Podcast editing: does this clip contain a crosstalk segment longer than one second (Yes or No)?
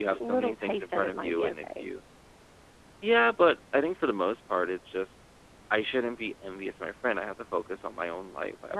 Yes